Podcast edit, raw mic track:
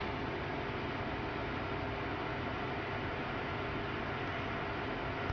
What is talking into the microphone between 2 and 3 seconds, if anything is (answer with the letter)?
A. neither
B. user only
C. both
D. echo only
A